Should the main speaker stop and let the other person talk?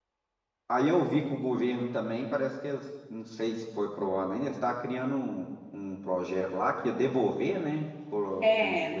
Yes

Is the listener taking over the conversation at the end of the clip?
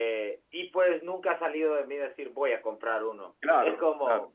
No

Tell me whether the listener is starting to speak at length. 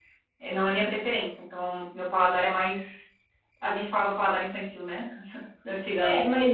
Yes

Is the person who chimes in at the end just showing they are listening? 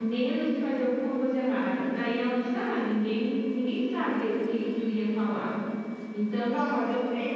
No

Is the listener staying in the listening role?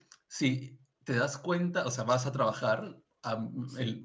Yes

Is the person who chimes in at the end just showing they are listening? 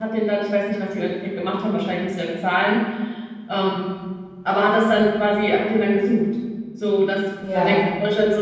Yes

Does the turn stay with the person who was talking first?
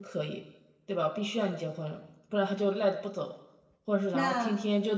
Yes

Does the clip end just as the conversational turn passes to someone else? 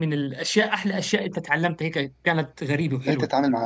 Yes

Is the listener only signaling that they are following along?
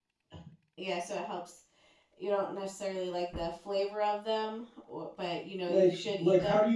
No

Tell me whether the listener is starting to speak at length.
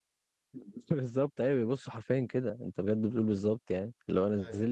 No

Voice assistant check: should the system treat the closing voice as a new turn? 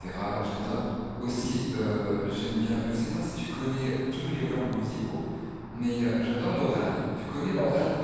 Yes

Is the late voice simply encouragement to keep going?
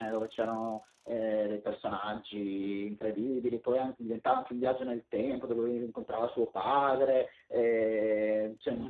No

